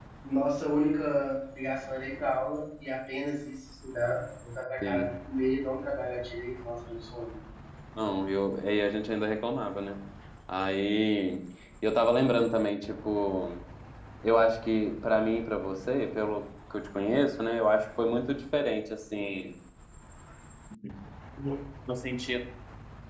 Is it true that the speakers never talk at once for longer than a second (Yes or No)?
Yes